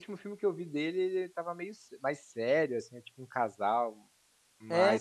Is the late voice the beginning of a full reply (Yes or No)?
No